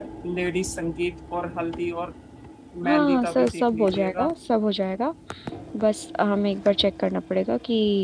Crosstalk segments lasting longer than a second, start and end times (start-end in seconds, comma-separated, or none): 2.8-4.3